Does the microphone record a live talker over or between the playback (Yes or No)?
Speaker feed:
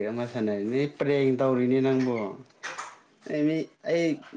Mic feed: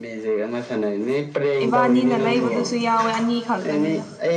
Yes